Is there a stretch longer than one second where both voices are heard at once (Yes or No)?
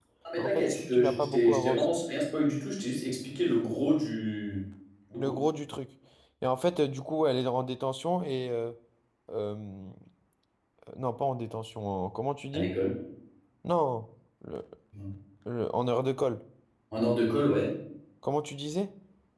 Yes